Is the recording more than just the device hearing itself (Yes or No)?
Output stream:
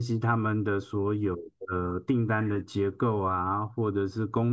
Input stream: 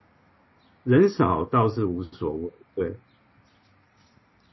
Yes